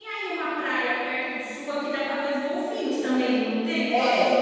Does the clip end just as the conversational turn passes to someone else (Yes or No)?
Yes